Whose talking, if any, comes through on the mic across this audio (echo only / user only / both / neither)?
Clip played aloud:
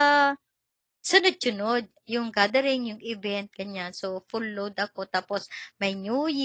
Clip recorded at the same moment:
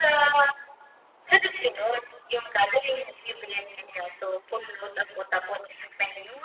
echo only